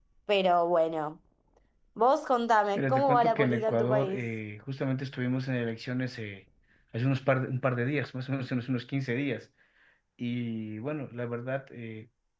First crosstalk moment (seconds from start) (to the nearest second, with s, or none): 3 s